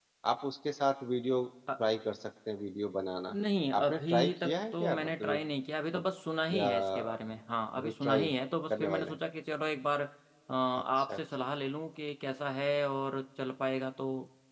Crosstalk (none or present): present